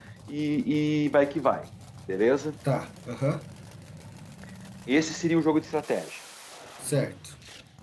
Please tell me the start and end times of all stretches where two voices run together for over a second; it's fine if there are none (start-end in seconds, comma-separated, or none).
none